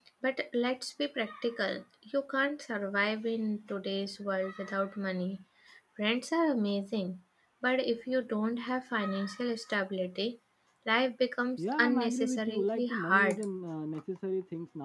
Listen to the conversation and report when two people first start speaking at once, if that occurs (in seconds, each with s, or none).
11.7 s